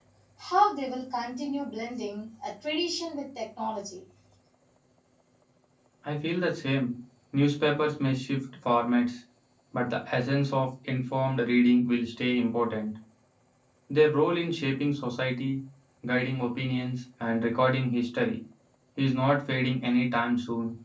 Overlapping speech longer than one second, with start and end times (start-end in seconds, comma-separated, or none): none